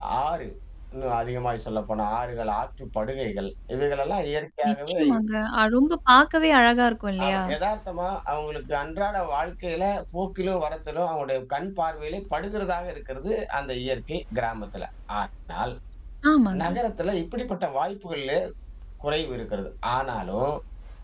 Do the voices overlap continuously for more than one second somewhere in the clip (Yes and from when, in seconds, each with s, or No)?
No